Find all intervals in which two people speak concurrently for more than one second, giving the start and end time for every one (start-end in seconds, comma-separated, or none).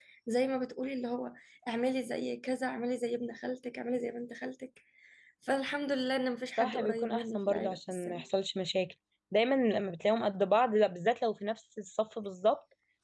6.6-8.2